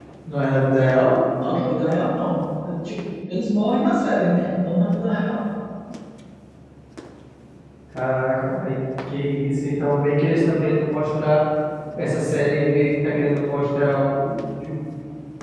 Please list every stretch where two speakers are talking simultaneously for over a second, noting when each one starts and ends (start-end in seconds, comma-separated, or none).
none